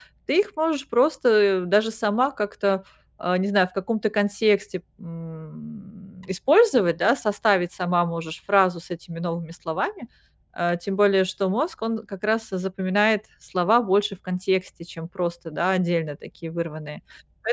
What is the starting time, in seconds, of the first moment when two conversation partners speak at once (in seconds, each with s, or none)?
none